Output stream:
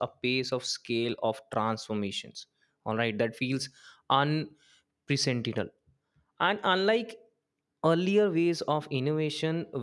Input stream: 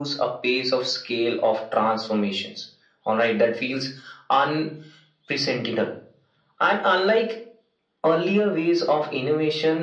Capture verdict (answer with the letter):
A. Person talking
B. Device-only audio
B